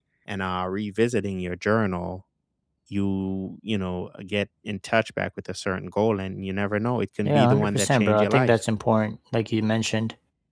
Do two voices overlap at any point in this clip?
Yes, from 7.2 s

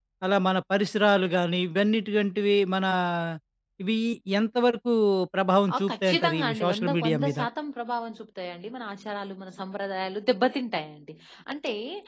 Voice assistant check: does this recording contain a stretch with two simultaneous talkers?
Yes, from 5.7 s

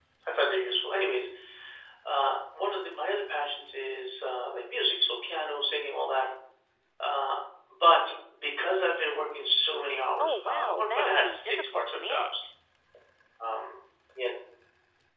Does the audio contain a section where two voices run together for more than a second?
Yes, from 10.2 s

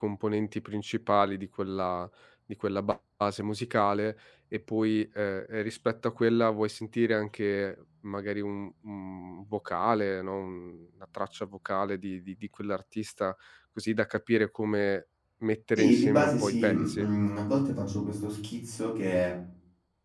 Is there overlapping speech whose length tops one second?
Yes, from 15.8 s

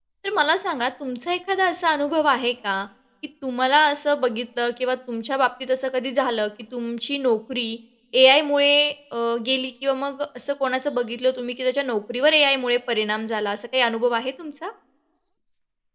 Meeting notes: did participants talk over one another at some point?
No

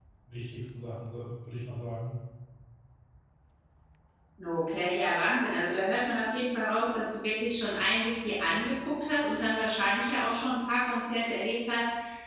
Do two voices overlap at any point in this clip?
No

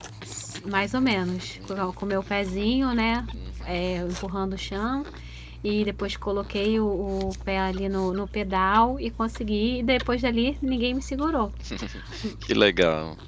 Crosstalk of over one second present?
No

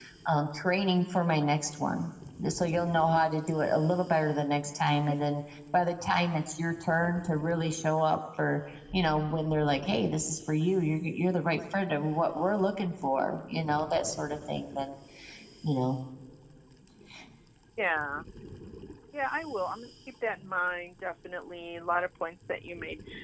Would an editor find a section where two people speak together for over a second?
No

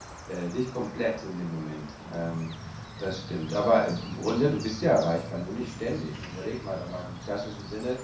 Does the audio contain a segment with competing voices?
No

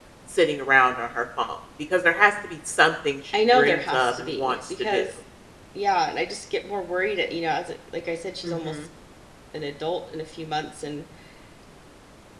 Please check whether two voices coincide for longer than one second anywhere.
Yes, from 3.5 s

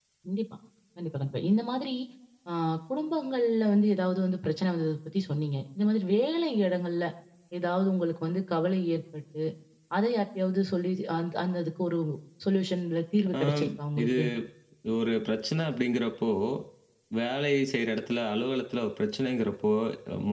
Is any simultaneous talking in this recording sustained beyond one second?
No

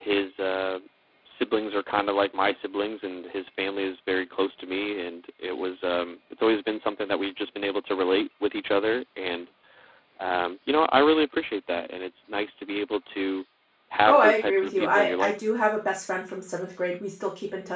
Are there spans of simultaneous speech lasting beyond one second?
Yes, from 14.1 s

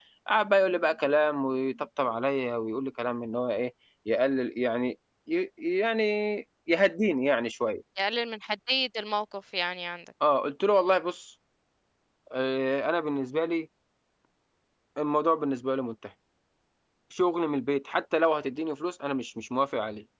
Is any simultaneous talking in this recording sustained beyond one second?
No

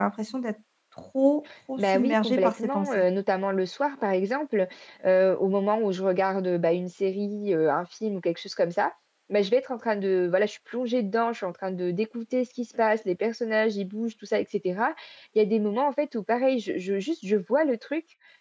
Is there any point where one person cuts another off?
Yes, from 1.8 s

